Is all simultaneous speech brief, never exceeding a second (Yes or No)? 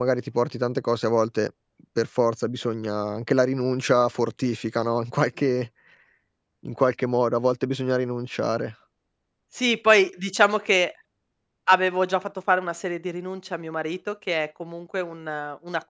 Yes